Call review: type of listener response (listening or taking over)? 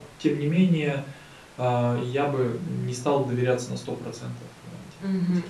taking over